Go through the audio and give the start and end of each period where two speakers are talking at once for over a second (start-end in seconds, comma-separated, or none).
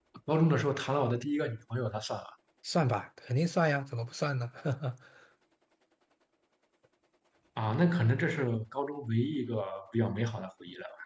none